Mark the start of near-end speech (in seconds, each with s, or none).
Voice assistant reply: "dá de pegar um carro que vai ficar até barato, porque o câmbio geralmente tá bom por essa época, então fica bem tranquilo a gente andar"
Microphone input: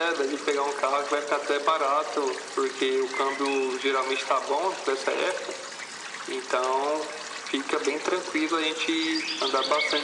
none